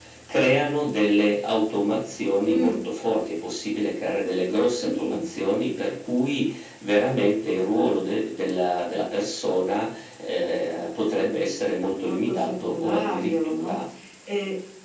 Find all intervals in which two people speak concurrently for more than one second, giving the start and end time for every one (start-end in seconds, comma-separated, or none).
12.0-13.8